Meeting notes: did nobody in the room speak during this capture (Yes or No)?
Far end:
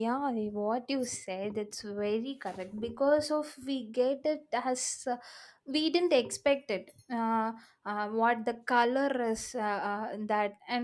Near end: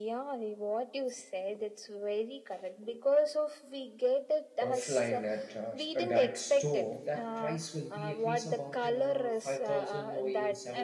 No